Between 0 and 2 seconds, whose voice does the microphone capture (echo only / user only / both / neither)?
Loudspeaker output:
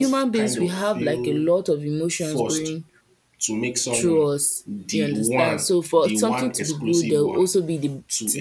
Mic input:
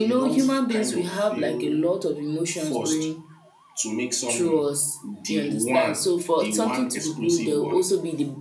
echo only